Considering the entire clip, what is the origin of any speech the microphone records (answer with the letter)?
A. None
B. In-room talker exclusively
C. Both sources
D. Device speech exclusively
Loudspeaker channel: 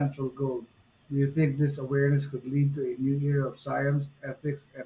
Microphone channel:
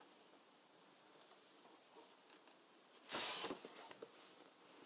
A